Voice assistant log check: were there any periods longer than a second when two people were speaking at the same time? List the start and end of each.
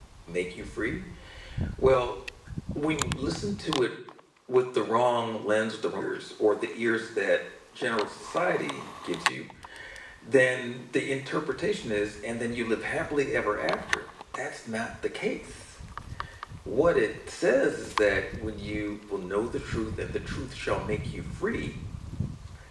none

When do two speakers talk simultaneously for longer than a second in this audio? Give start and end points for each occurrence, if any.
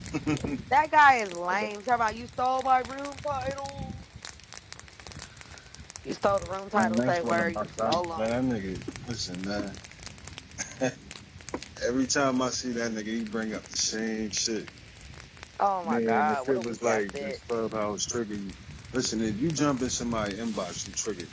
7.0-8.3, 15.8-17.4

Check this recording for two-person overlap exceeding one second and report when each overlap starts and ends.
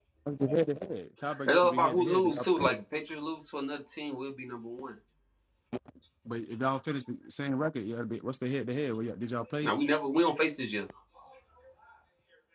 1.4-2.7

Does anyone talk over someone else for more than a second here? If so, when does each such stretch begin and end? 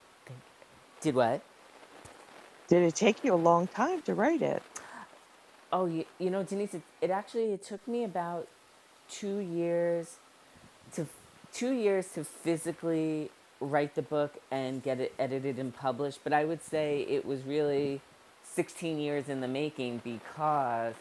none

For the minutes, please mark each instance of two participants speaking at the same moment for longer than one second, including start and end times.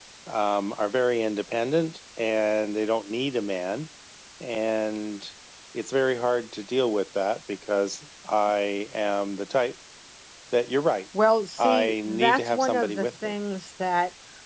11.6-13.3

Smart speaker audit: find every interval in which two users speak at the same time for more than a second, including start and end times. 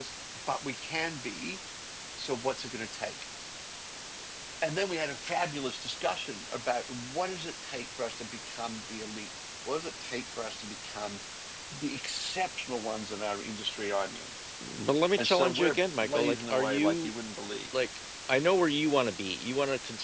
15.2-17.1

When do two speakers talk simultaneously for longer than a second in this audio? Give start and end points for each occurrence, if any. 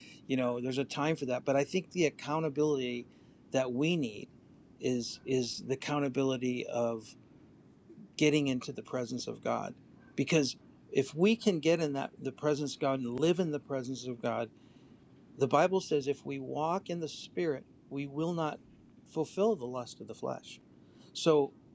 none

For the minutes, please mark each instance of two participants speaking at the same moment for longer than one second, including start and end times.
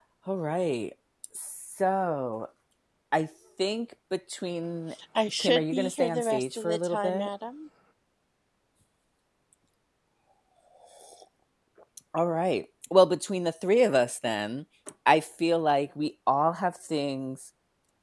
5.4-7.3

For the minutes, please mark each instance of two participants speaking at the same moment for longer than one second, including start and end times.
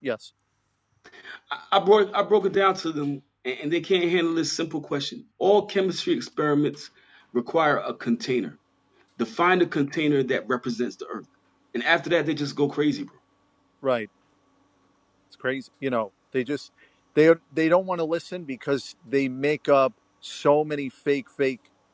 none

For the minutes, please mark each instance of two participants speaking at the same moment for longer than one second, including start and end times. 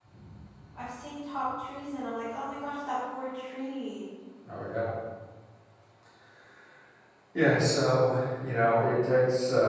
none

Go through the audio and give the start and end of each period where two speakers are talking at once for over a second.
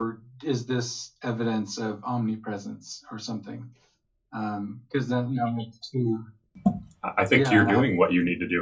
none

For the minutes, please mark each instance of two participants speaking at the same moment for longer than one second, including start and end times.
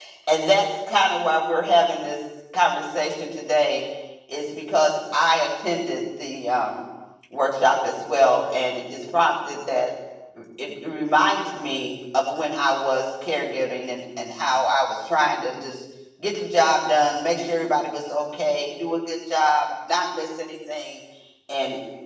none

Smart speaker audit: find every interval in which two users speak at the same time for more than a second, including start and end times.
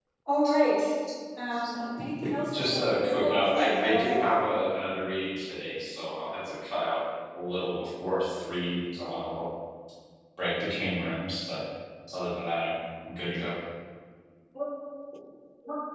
2.5-4.2

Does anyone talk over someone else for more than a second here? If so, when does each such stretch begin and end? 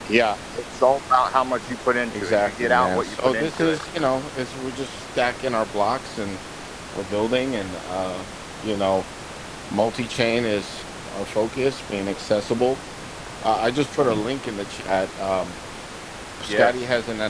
2.2-3.8

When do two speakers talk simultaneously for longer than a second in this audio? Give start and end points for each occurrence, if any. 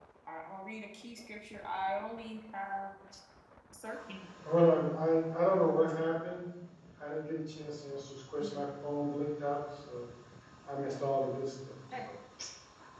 none

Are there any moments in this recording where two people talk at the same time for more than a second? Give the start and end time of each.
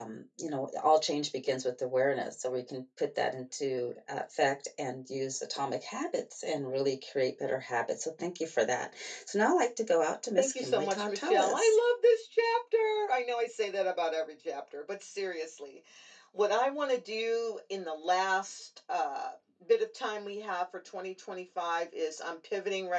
10.4-11.7

